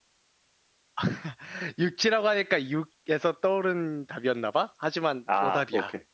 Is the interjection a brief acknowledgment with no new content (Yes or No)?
No